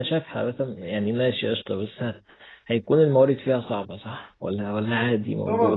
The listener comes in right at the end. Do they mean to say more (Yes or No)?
Yes